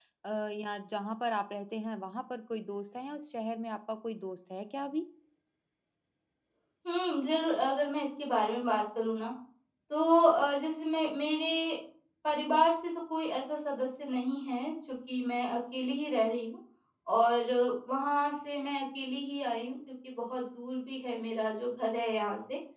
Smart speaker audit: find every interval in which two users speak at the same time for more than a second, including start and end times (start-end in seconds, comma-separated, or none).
none